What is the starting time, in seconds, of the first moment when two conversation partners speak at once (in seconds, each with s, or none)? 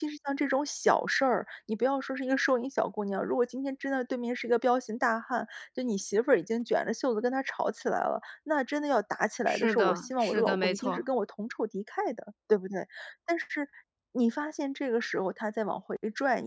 9.5 s